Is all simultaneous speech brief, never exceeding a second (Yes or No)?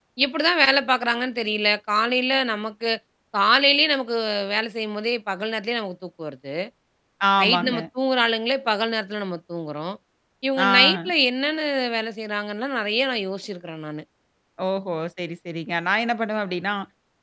Yes